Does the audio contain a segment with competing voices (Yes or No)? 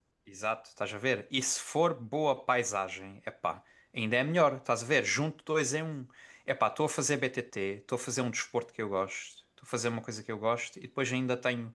No